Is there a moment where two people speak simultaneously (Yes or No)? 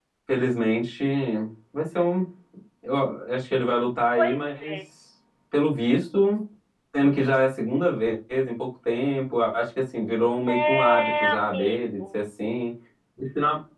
Yes